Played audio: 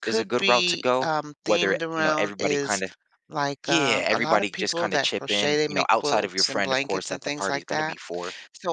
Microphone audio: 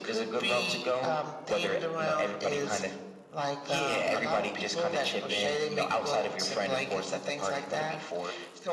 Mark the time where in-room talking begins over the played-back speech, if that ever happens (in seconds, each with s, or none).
none